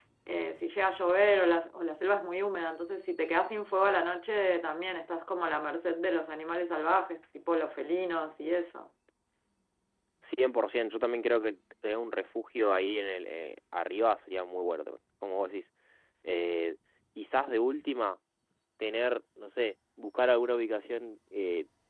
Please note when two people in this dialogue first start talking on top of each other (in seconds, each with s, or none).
none